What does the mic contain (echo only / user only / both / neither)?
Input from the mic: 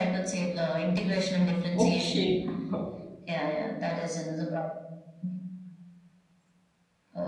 both